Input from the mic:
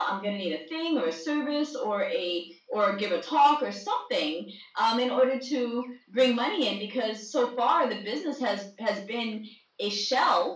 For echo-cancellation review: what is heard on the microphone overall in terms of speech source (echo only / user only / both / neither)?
echo only